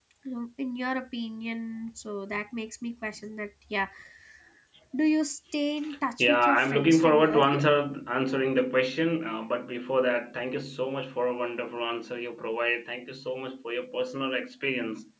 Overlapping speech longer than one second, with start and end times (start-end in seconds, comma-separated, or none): 6.2-7.6